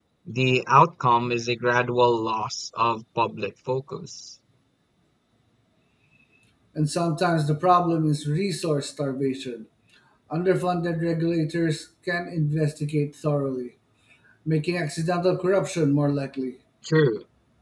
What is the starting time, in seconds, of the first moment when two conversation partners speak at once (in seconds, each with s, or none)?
none